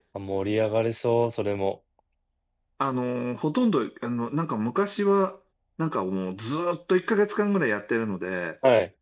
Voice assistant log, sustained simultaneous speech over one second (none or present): none